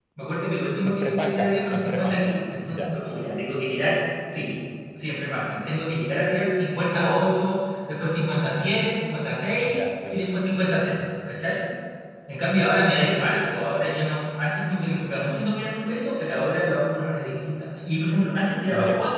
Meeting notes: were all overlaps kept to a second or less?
No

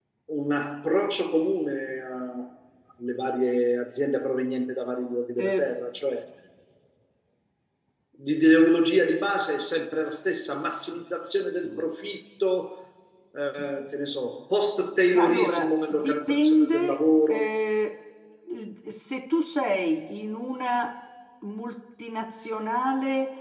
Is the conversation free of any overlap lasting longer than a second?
No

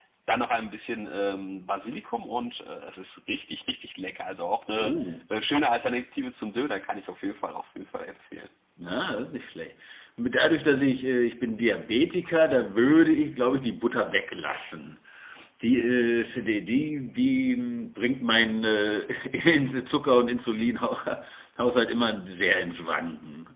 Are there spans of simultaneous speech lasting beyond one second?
No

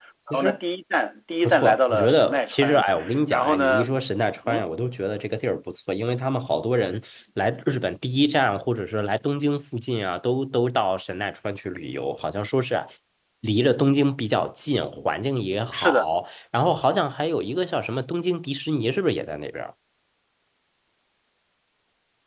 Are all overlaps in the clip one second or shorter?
No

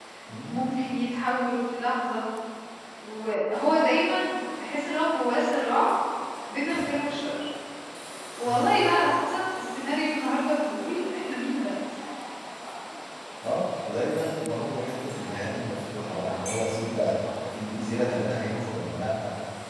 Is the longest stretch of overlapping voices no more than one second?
Yes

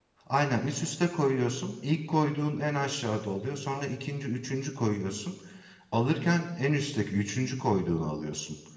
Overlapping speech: No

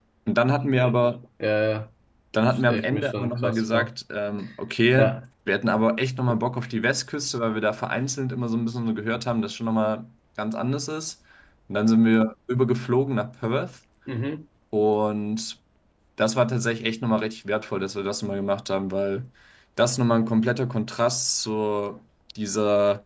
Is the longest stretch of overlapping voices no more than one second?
No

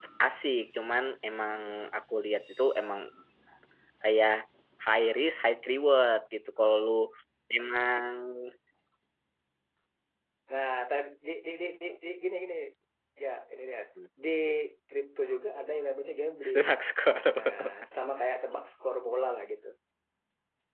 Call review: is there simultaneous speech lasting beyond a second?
No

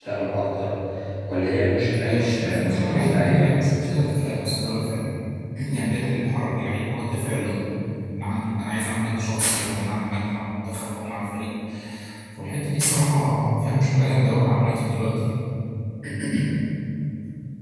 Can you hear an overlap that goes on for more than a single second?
Yes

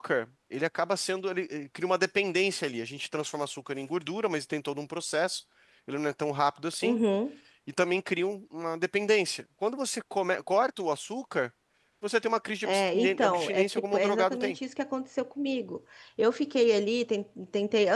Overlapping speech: Yes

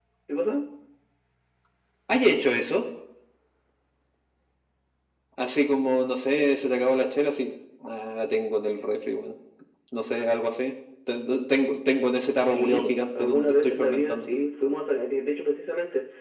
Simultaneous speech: Yes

